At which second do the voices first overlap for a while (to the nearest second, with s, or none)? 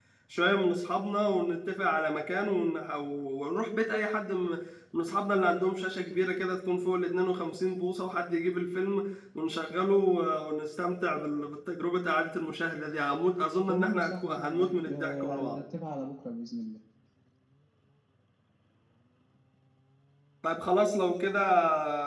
14 s